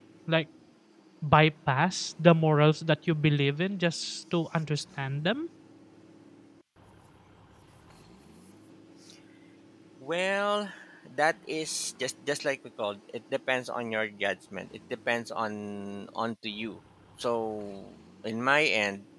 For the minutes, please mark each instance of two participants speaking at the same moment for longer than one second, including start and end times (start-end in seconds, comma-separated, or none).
none